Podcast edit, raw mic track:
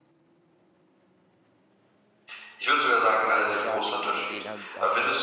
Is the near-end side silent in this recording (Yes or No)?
No